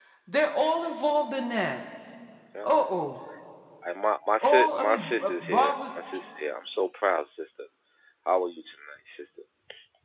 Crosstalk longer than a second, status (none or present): present